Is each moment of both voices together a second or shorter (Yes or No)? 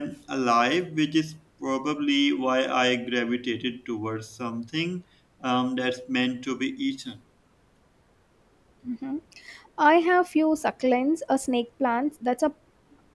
Yes